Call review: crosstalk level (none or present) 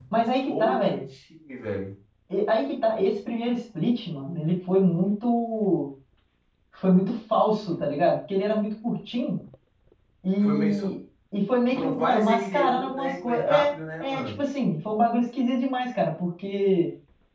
present